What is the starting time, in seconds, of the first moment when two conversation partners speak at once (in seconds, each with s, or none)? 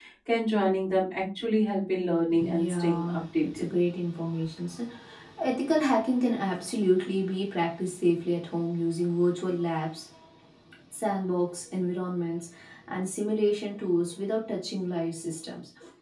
2.3 s